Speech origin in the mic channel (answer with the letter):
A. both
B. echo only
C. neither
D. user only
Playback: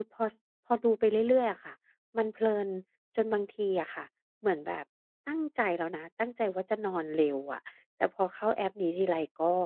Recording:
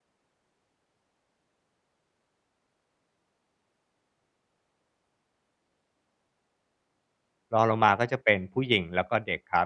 D